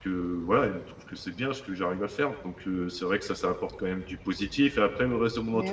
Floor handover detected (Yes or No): No